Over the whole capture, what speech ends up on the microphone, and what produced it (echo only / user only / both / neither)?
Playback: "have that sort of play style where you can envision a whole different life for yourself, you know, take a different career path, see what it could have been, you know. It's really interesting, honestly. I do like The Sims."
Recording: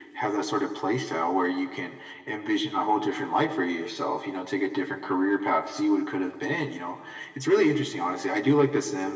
echo only